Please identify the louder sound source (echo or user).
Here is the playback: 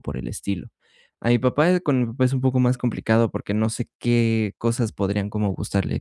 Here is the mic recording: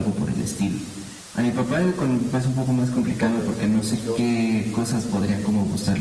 echo